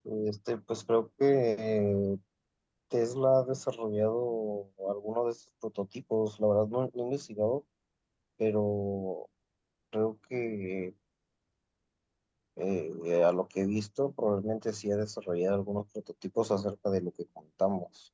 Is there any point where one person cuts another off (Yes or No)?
No